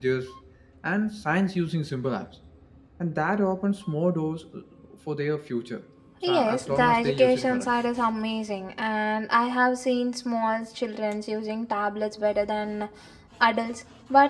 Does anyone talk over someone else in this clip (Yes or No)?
Yes